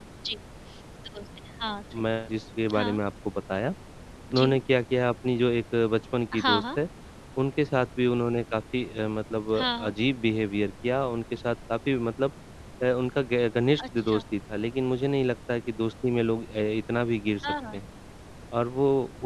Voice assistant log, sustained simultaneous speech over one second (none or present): none